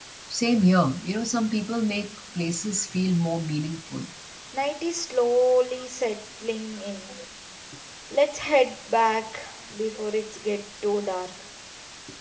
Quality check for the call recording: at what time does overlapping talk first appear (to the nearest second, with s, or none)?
none